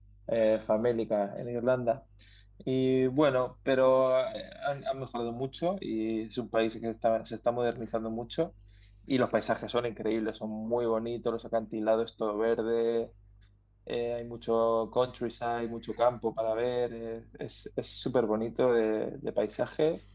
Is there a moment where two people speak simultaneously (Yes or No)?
No